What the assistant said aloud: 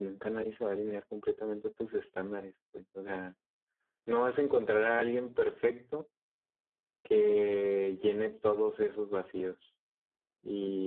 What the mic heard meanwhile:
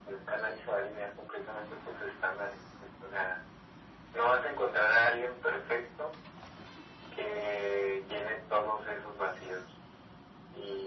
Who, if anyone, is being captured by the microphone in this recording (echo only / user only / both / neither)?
echo only